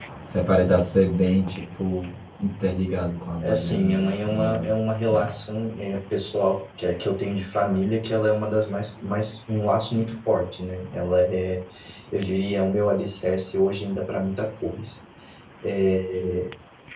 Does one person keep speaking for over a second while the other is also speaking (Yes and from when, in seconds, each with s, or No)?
Yes, from 3.4 s